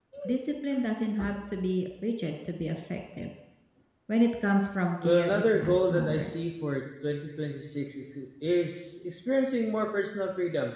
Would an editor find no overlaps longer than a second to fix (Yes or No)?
No